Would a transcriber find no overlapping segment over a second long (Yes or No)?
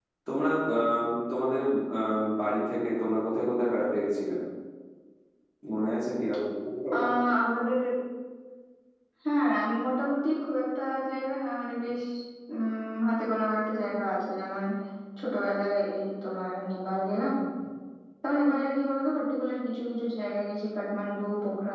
Yes